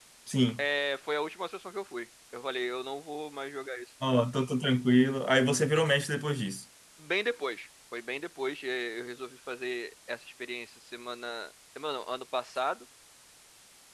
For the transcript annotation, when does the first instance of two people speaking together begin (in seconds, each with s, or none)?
none